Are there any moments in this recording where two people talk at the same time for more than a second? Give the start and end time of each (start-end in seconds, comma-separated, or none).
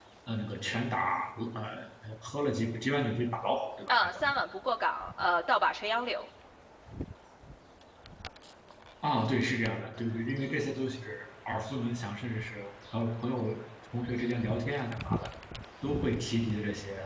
none